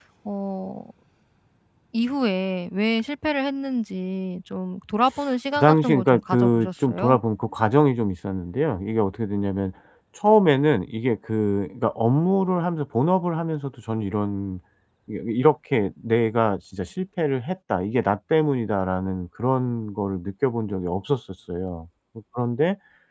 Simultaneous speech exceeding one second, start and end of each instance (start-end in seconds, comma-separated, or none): 5.6-7.2